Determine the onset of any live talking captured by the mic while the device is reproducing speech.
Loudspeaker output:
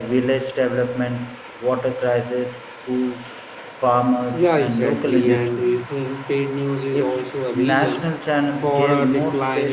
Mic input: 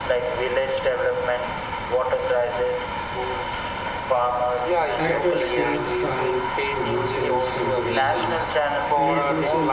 5.0 s

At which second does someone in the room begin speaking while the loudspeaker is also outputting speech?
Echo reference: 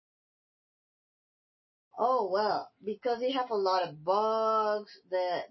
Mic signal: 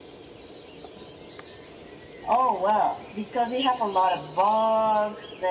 none

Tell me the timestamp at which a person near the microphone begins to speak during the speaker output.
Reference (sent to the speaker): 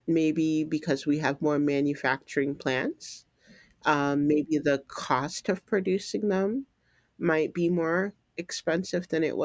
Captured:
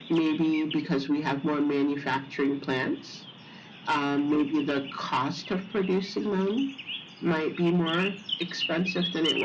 none

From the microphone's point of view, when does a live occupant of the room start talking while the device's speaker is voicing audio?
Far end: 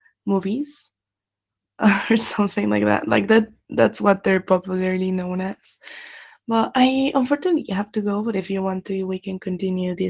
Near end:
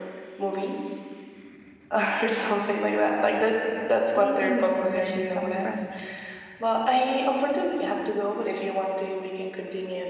4.1 s

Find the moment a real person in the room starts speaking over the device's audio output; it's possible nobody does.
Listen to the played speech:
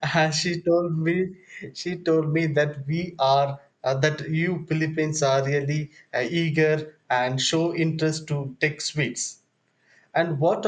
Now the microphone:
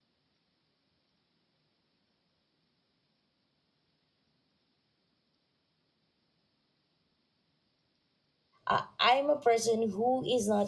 8.7 s

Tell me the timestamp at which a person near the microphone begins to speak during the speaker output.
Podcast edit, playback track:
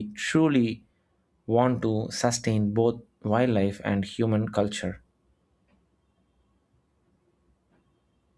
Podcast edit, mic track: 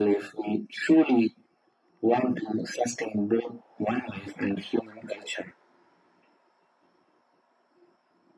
none

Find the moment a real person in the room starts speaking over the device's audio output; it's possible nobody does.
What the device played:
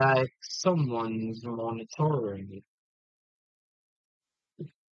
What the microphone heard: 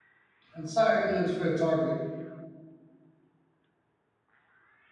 0.6 s

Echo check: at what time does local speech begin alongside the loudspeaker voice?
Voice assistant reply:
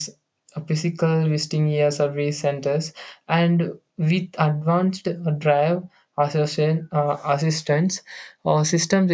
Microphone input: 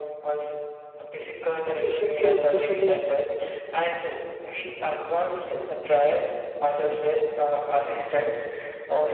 1.6 s

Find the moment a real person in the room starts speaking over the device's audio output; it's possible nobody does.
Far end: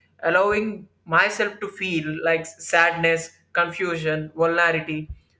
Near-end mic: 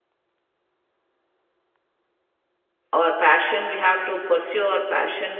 2.9 s

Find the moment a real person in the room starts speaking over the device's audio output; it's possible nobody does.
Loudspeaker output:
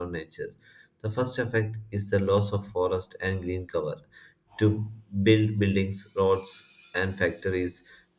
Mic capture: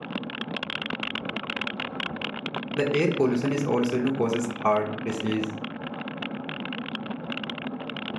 2.7 s

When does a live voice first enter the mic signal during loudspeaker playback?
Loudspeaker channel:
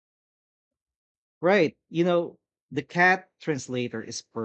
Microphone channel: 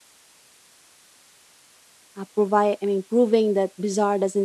2.2 s

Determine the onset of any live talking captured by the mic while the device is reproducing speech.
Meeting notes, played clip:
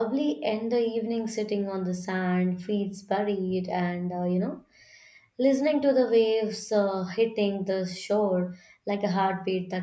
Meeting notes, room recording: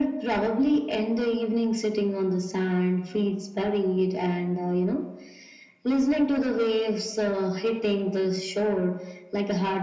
none

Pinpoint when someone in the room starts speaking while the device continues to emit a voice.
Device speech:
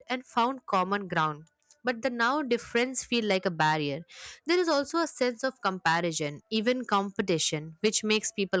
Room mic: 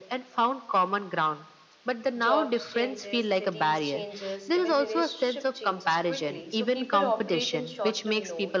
2.2 s

